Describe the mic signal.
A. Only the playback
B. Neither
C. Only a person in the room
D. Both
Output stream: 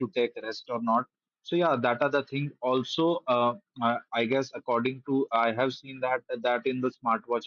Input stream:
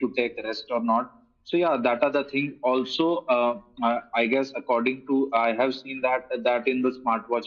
A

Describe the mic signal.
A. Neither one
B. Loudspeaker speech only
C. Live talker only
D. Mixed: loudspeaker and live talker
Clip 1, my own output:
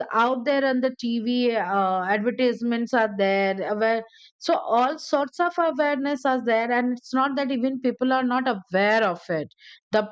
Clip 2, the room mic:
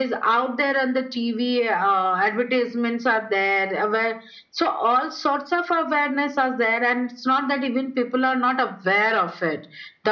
B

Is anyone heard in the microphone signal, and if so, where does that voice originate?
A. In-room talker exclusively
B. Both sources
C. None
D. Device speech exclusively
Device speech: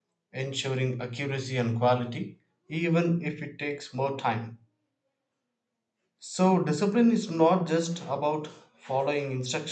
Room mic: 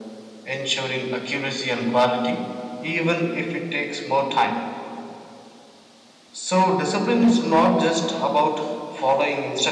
D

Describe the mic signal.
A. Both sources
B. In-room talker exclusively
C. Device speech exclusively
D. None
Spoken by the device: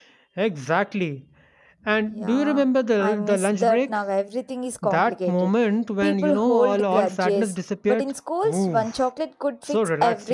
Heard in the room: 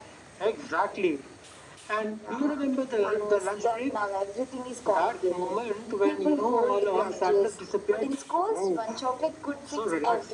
C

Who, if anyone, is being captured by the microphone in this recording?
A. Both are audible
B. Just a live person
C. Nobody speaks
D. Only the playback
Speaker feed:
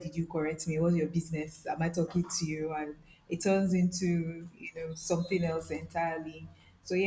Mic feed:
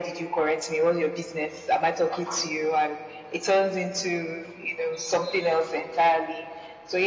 D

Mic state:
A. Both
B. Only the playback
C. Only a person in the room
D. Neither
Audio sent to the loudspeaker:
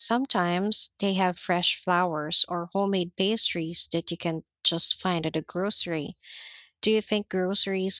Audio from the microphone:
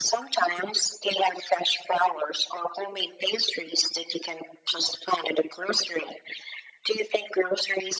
B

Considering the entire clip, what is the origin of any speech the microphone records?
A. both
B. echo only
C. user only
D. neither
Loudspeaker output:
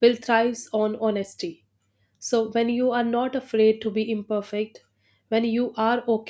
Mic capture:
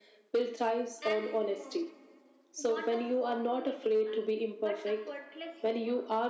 A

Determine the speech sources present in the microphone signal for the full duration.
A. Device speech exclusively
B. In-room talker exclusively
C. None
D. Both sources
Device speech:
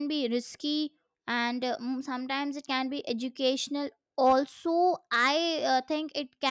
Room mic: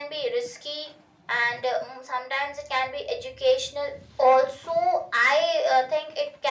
A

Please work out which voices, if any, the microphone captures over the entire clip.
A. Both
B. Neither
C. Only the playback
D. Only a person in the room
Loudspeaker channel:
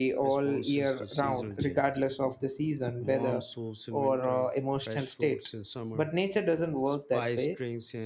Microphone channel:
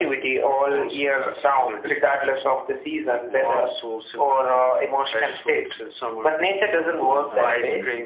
A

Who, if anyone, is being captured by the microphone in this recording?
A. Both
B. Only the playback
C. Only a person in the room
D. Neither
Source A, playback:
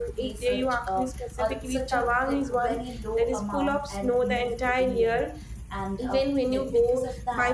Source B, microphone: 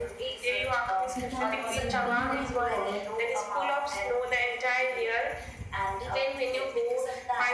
A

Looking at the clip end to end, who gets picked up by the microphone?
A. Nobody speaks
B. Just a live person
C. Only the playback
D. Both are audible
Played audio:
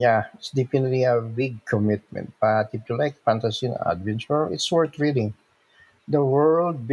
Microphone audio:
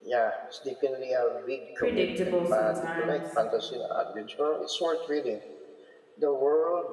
D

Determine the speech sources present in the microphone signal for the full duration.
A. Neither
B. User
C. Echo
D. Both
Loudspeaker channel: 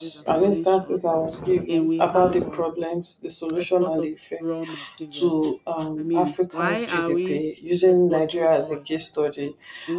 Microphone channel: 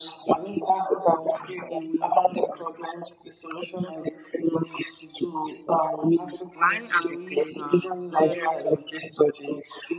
D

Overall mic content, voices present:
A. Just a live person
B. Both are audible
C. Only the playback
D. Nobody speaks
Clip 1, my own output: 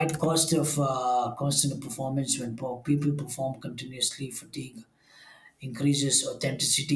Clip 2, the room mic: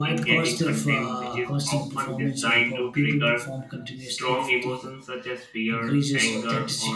B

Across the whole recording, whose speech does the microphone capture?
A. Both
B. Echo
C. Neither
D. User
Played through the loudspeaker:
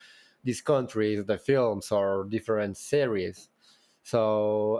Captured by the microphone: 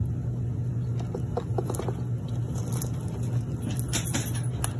C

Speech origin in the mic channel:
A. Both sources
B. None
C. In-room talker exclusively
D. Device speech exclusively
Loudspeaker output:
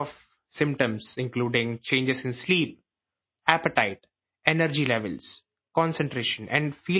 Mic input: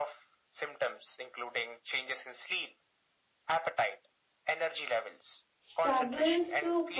A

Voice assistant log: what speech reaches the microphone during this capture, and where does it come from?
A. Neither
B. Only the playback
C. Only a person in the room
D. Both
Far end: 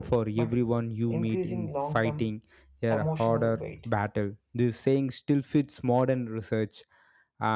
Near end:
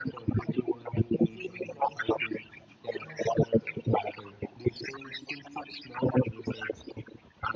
B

